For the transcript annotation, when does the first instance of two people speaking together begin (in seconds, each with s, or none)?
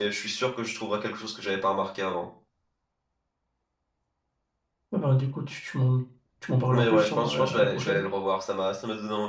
6.7 s